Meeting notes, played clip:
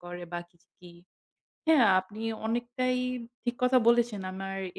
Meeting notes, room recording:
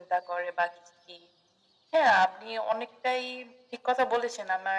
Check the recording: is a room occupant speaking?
No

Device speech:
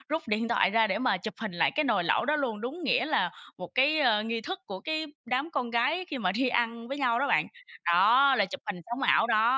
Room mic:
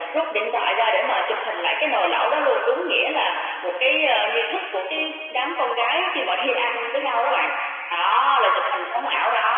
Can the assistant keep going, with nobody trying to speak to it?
Yes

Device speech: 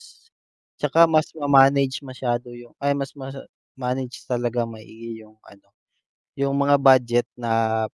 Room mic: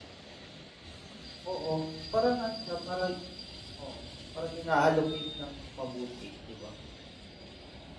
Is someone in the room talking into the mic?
Yes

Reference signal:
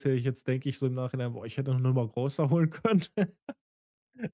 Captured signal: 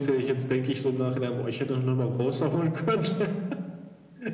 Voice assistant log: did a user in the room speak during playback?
No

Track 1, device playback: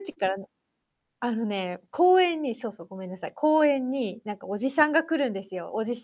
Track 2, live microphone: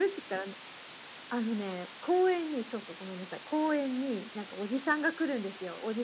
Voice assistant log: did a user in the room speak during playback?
No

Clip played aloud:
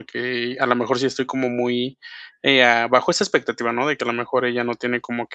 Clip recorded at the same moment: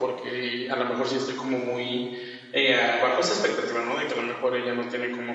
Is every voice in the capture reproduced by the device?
Yes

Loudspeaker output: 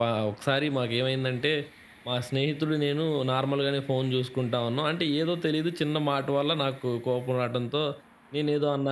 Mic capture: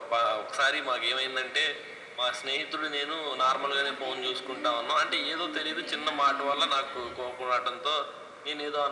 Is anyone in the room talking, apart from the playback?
Yes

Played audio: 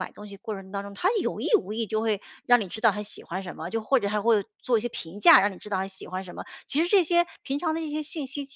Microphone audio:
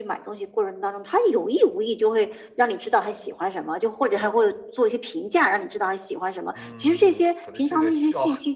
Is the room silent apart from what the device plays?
No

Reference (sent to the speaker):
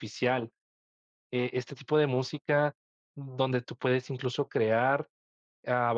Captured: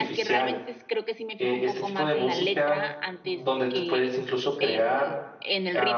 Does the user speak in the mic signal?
Yes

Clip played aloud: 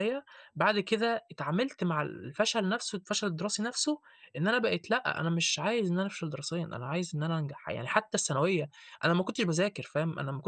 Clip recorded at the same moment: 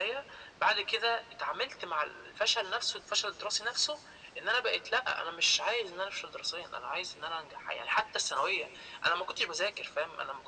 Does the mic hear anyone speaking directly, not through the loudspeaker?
No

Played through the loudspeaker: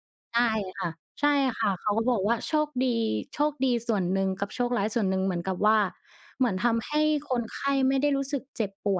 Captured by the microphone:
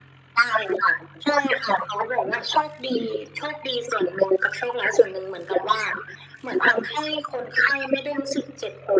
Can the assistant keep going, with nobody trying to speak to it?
Yes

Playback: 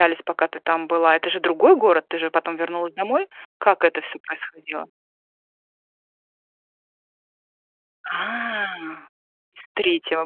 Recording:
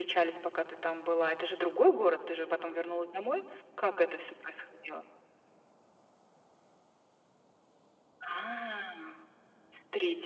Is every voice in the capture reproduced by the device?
Yes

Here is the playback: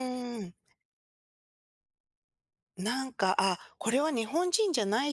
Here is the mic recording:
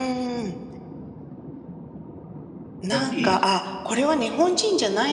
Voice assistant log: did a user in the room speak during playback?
Yes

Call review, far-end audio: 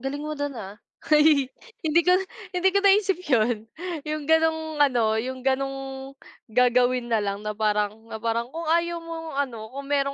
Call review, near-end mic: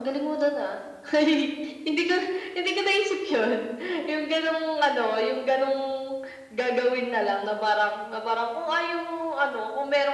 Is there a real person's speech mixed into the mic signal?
No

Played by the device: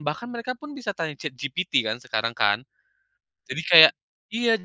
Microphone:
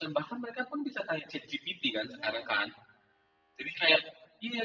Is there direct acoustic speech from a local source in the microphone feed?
Yes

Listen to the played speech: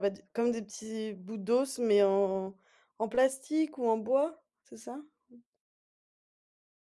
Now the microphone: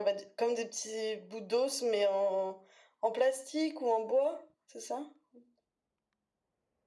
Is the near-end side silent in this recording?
Yes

